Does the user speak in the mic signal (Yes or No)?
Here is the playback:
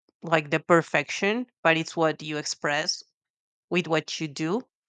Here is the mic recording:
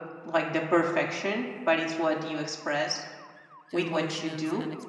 Yes